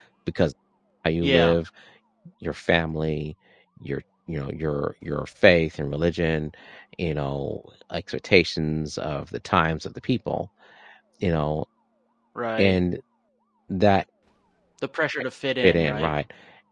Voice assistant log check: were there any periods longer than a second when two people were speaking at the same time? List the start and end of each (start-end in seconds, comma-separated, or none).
none